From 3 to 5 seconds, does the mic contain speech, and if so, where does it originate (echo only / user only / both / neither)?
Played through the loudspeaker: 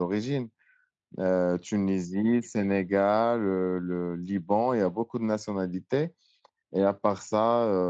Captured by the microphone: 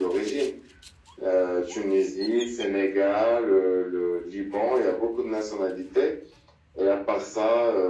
echo only